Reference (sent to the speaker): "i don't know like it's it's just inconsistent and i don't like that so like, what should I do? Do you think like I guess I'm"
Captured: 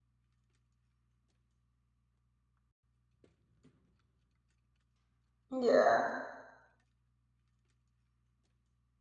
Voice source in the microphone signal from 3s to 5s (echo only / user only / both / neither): neither